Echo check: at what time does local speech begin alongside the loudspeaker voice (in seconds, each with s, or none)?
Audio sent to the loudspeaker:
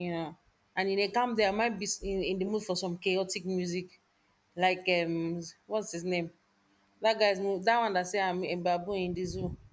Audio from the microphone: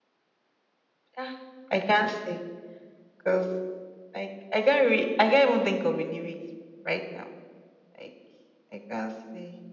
1.2 s